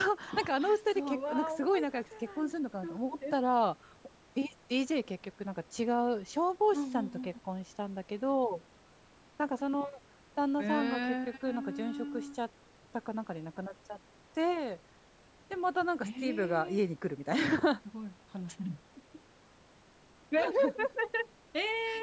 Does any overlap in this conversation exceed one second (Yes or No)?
Yes